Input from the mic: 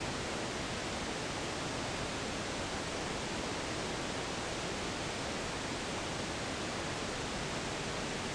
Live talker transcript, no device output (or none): none